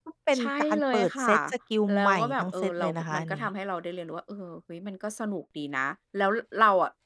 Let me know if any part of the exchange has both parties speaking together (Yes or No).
Yes